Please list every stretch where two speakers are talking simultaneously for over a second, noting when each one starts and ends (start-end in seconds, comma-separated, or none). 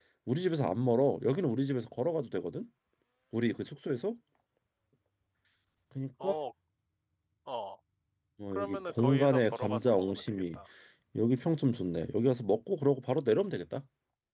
8.5-10.6